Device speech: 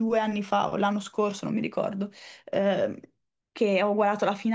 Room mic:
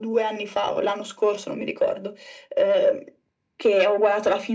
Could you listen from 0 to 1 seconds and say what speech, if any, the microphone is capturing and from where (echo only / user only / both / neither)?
echo only